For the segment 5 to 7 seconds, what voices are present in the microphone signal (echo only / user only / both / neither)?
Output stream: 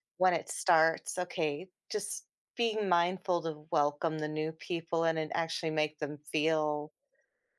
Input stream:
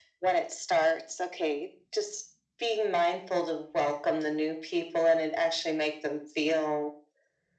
echo only